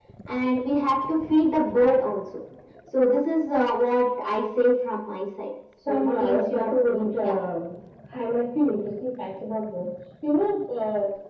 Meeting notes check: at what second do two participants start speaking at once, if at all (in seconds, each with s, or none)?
5.8 s